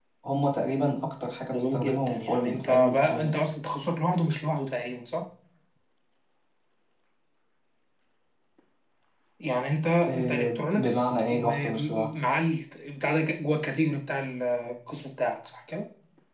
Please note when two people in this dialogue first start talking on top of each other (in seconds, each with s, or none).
1.5 s